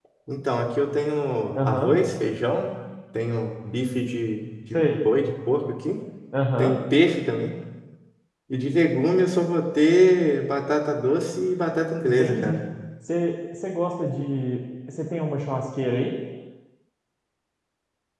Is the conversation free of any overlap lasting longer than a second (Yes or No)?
Yes